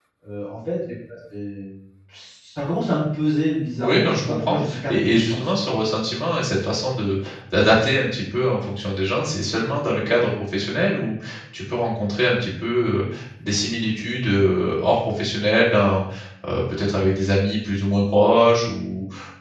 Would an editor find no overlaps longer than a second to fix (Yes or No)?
No